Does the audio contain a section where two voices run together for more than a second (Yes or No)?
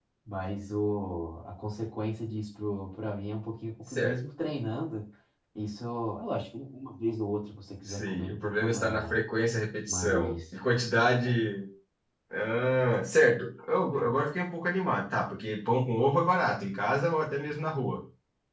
Yes